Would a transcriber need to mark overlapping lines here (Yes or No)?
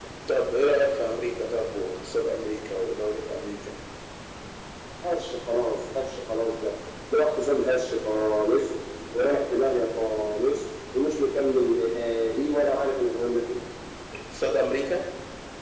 No